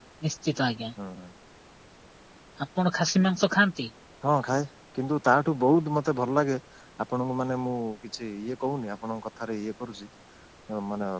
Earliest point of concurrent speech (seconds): none

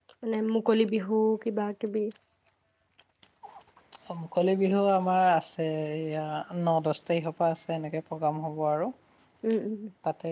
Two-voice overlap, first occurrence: none

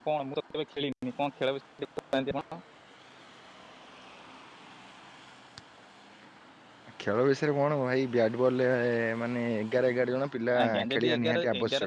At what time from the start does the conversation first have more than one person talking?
10.5 s

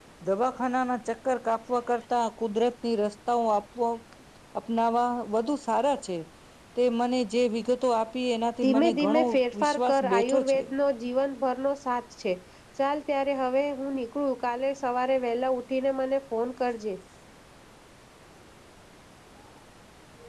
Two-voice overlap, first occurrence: 8.6 s

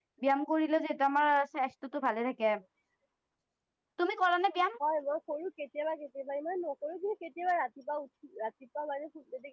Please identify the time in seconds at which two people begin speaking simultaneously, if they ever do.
none

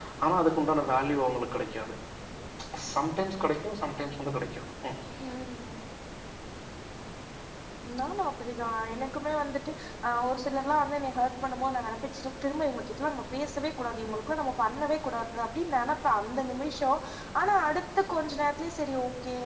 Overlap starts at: none

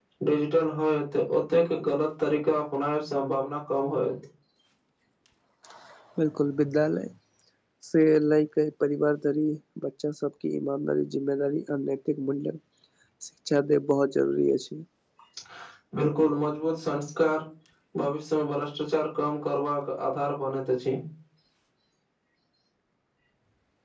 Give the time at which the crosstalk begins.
none

